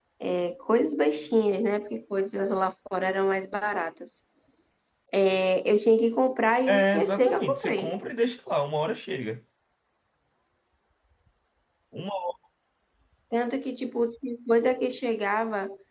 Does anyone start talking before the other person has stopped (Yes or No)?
Yes